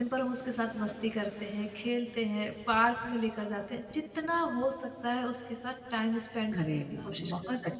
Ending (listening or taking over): taking over